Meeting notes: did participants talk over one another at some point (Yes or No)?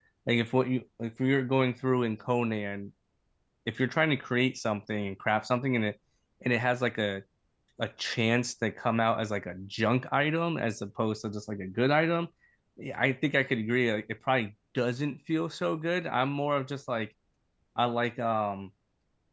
No